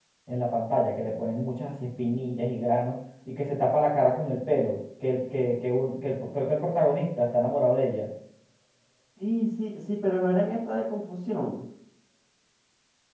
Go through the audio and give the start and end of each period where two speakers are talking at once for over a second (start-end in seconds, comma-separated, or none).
none